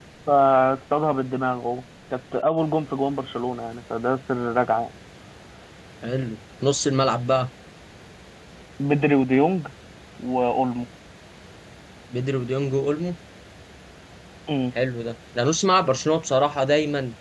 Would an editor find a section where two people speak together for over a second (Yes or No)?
No